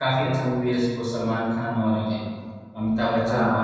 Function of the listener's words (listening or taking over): taking over